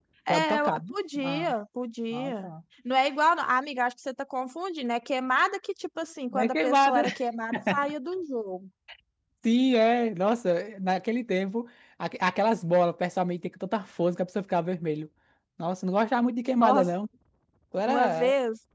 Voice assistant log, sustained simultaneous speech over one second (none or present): present